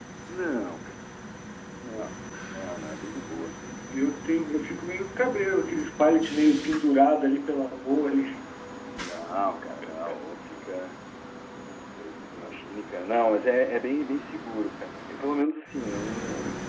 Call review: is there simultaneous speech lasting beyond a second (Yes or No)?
No